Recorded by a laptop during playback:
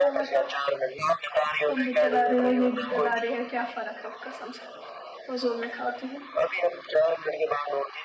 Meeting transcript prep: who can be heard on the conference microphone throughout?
both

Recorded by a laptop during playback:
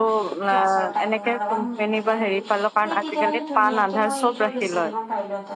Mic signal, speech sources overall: both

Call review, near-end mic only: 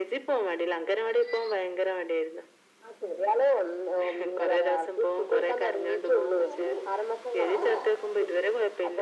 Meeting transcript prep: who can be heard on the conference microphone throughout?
echo only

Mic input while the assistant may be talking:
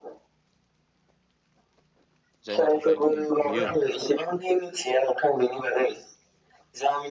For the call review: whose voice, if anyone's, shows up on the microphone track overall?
both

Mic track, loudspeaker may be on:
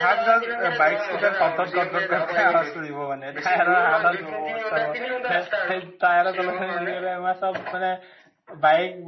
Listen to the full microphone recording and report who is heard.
both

